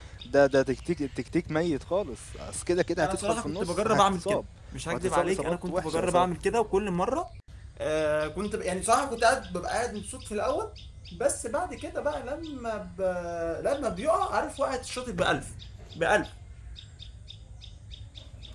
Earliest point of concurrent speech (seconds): 3.0 s

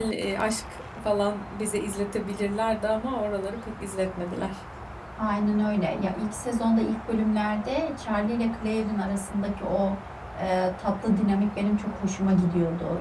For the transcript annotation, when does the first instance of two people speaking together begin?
none

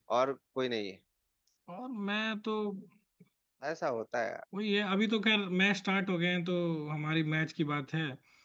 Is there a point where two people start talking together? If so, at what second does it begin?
none

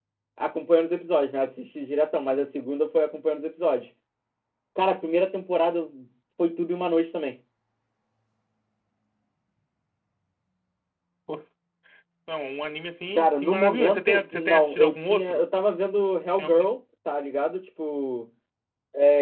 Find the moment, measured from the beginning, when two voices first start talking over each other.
13.2 s

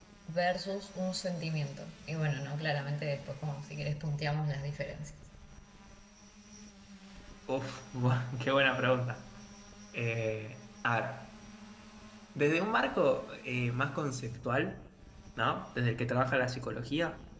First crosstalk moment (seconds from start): none

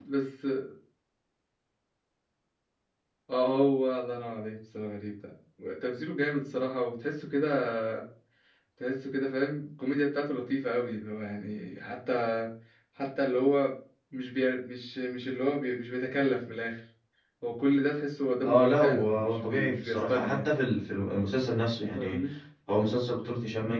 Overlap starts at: 18.4 s

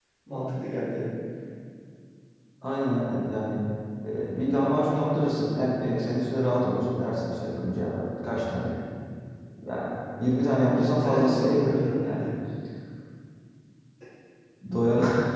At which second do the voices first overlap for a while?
10.6 s

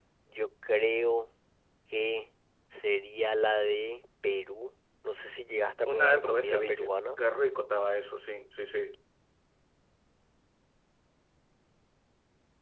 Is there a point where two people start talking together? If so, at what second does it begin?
5.9 s

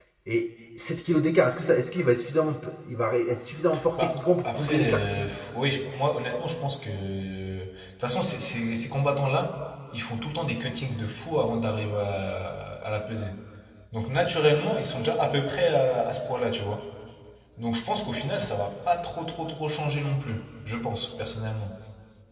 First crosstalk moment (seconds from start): 3.7 s

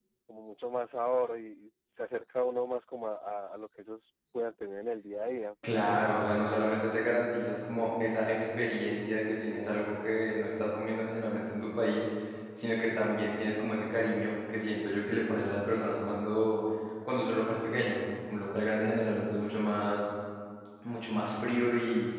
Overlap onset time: none

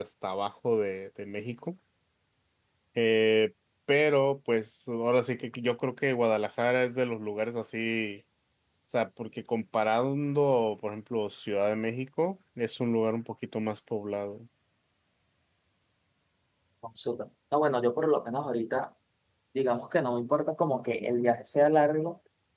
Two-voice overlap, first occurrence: none

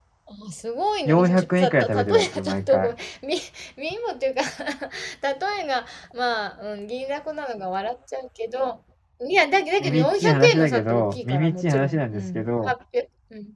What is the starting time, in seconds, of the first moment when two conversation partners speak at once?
1.0 s

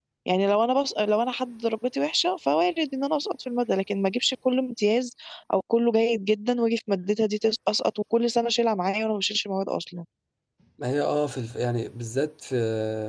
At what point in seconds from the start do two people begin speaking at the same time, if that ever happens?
none

